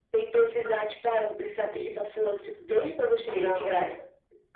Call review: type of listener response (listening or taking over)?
listening